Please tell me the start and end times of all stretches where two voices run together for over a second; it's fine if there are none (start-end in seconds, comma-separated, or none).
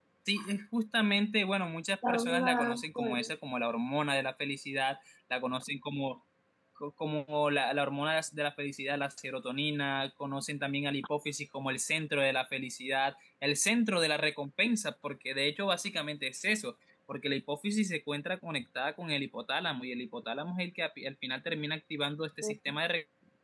2.1-3.3